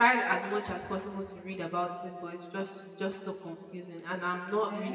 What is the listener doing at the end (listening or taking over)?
taking over